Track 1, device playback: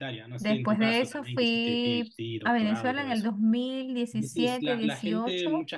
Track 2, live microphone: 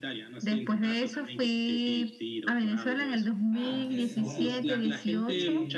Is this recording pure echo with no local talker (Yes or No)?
No